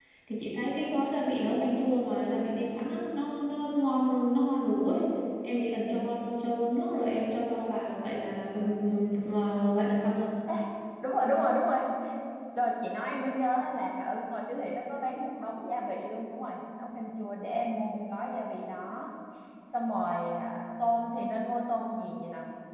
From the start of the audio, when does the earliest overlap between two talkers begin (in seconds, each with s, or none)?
none